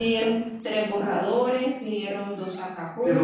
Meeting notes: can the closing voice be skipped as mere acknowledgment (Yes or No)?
No